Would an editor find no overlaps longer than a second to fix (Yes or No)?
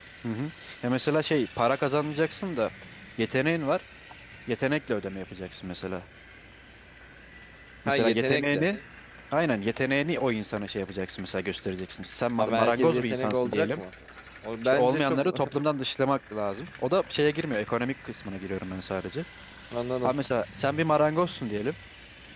No